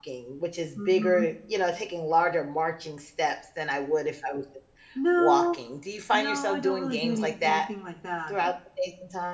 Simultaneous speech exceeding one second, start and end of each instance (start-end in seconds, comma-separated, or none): 6.1-7.6